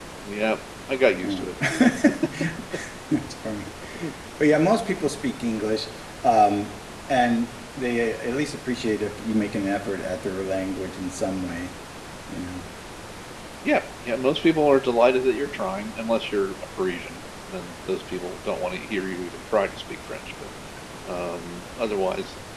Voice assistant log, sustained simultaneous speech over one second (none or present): none